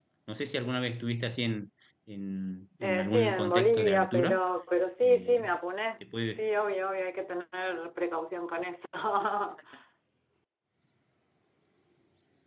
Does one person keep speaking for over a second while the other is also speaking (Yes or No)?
Yes